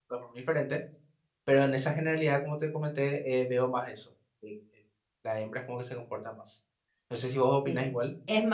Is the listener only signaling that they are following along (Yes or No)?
No